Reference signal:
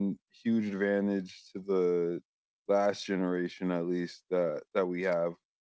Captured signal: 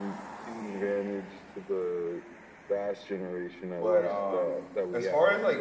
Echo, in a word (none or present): present